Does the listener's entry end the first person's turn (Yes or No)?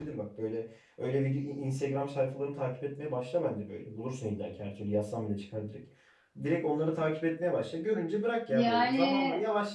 No